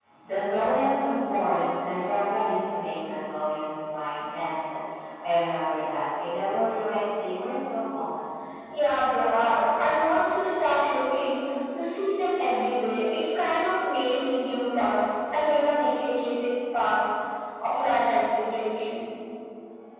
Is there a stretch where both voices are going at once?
No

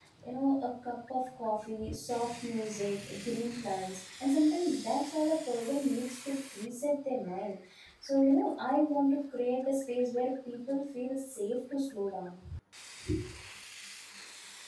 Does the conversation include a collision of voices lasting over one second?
No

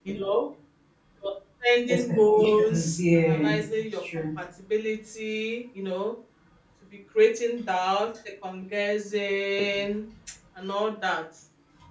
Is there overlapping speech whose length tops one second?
Yes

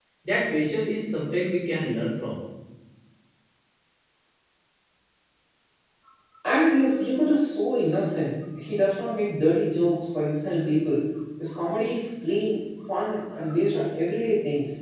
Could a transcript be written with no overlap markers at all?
Yes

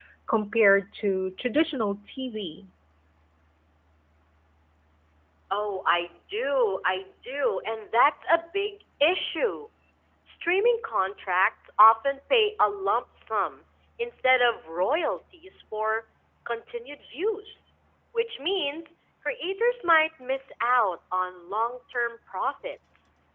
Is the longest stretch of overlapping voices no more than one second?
Yes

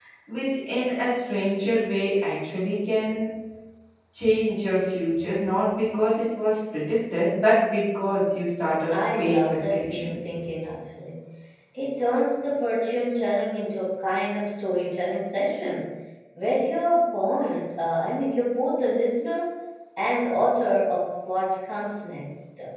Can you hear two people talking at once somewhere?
Yes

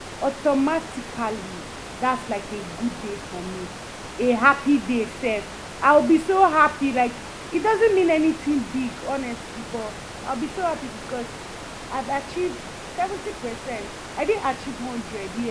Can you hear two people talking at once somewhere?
No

